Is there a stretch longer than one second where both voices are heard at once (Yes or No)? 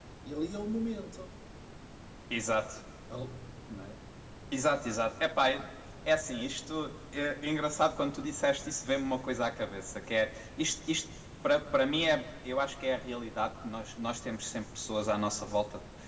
No